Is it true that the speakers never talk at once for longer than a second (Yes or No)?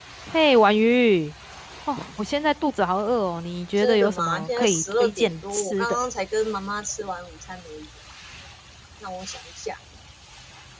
No